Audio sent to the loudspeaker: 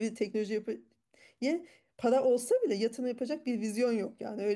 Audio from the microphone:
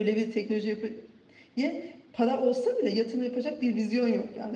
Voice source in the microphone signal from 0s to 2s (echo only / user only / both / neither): echo only